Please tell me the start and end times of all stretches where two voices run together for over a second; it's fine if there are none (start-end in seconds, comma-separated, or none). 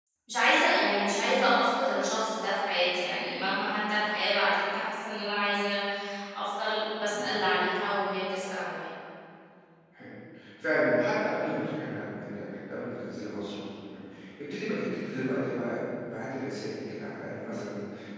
none